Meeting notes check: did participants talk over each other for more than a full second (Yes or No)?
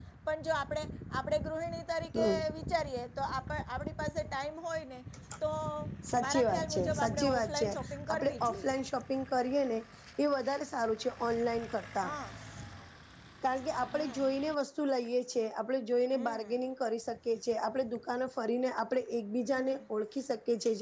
Yes